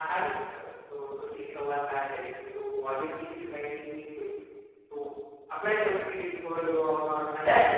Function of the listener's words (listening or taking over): taking over